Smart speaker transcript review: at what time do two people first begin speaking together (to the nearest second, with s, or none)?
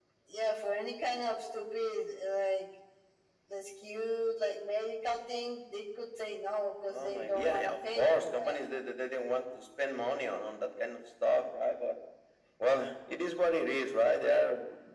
7 s